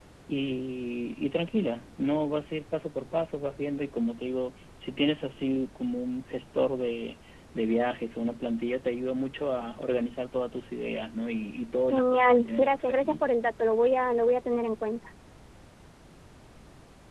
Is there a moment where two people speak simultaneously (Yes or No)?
Yes